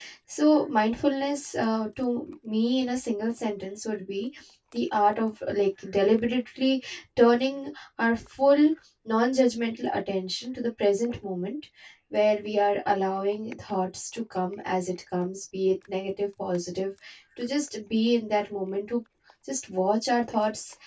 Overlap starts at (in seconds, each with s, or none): none